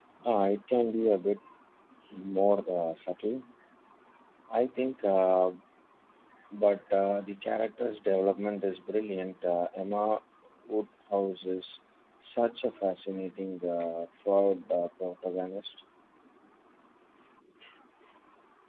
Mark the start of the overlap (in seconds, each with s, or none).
none